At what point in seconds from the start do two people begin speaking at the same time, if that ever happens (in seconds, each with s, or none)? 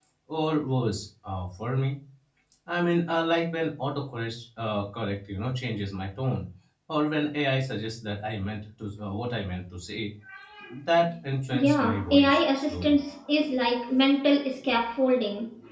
11.5 s